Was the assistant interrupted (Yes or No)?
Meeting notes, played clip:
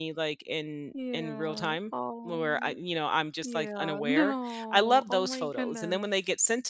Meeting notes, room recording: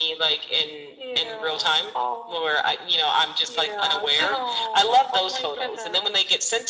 No